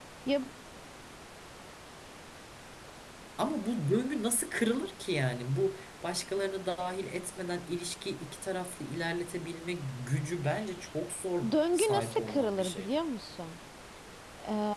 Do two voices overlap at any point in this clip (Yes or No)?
Yes